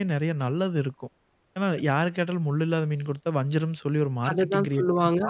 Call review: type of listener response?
taking over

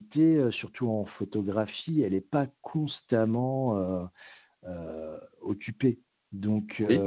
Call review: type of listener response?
listening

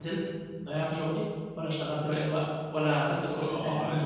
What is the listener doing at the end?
taking over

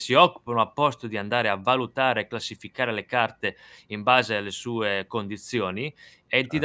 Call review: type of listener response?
taking over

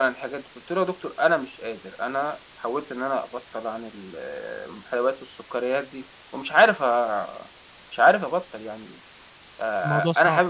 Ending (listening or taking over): listening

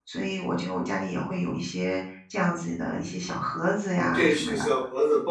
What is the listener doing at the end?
taking over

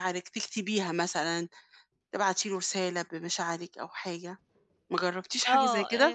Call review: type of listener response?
taking over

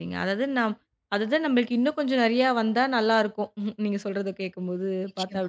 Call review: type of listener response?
listening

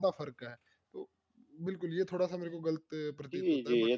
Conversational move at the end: taking over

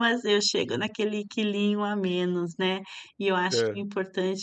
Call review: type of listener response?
listening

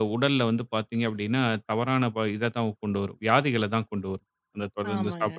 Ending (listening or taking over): listening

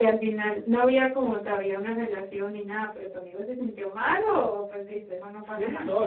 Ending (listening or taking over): taking over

